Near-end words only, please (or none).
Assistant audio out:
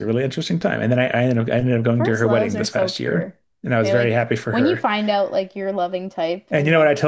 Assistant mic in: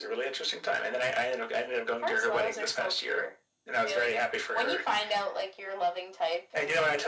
none